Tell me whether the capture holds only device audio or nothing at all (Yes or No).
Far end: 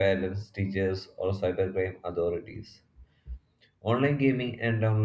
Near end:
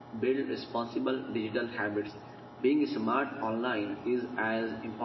No